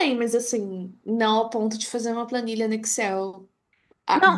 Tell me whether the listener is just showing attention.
Yes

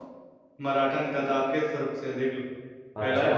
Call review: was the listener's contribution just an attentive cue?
Yes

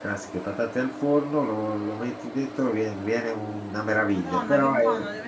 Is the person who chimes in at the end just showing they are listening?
No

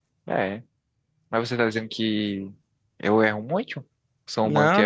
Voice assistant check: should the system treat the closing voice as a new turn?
Yes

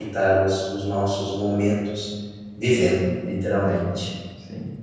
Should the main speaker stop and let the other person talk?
Yes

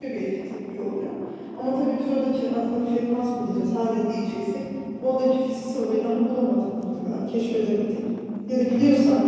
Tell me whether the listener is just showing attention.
Yes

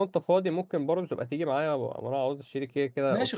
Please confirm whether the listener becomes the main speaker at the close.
Yes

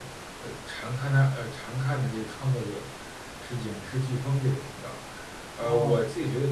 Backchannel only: Yes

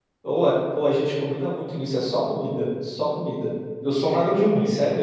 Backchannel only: Yes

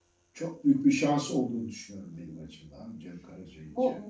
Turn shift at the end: Yes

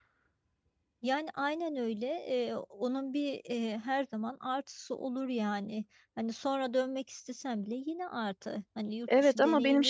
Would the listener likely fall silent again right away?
No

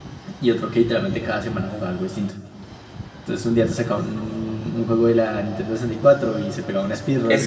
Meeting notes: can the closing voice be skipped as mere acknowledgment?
No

